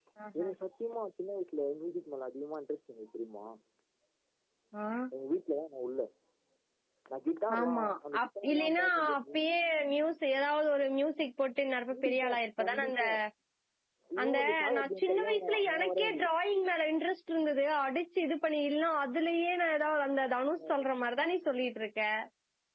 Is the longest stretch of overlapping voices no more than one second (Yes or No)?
No